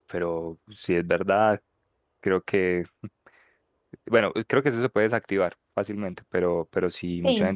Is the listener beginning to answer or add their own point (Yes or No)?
No